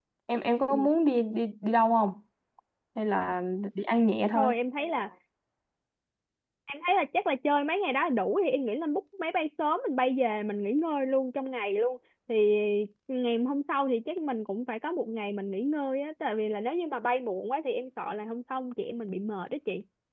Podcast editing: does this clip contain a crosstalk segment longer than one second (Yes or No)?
No